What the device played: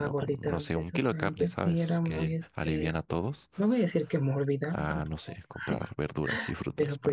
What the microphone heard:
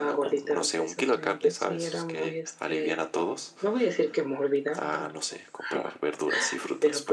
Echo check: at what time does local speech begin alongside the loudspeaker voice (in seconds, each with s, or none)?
none